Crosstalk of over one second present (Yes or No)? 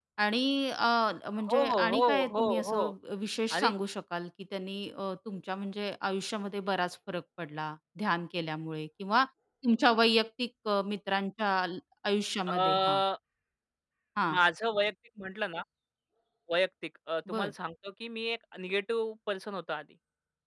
Yes